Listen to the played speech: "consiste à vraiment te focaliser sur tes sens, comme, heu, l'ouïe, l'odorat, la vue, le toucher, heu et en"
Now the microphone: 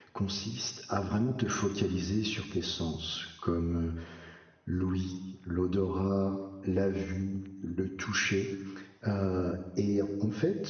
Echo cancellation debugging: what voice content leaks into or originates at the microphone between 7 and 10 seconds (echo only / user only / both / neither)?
echo only